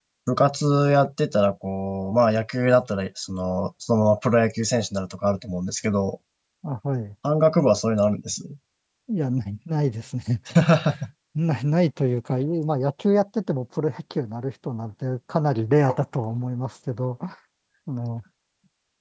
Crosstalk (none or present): none